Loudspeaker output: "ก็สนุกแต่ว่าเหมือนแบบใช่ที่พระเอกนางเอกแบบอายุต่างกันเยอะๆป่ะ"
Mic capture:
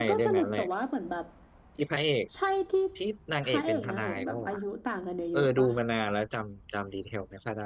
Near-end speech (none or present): present